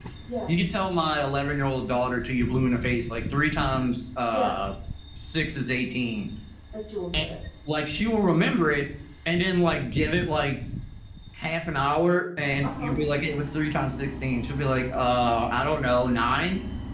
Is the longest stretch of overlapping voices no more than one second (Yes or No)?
Yes